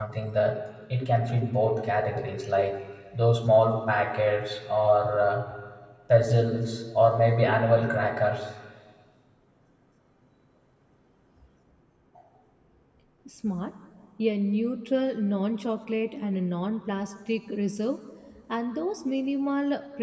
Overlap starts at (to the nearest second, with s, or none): none